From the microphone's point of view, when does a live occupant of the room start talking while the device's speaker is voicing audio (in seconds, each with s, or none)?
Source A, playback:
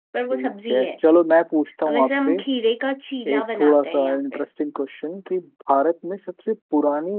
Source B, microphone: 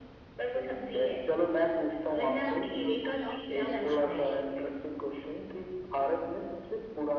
2.1 s